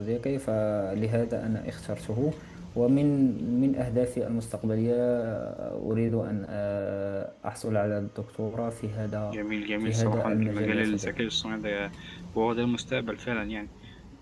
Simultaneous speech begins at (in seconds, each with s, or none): 9.8 s